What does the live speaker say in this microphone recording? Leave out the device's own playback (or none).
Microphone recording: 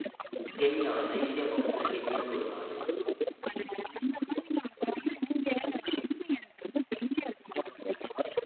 கென்யா, நைஜீரியா பக்கத்தில கென்யான்னு ஒரு நாடு.